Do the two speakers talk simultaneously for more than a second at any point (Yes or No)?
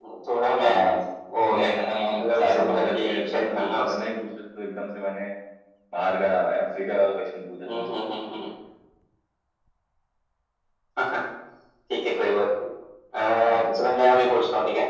Yes